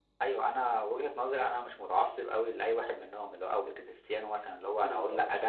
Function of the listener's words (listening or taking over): listening